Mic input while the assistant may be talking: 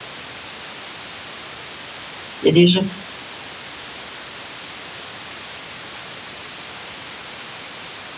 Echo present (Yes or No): No